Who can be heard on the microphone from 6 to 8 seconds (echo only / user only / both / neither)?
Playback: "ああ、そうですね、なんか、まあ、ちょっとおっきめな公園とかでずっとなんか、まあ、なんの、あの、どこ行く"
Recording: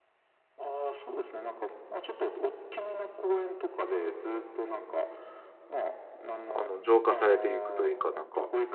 both